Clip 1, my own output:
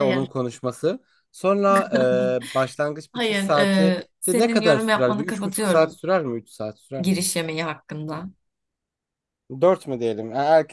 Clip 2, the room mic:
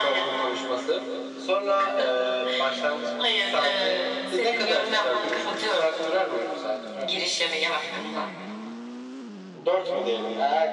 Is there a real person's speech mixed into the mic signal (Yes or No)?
No